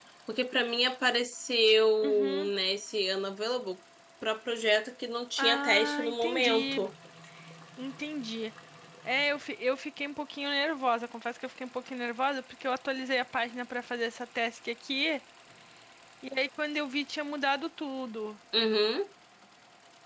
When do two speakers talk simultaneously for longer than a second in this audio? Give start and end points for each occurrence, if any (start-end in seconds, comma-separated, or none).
5.4-6.9